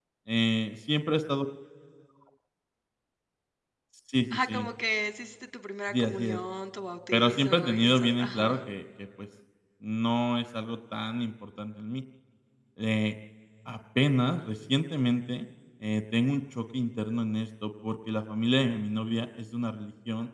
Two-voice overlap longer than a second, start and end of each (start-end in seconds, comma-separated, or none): 7.1-8.6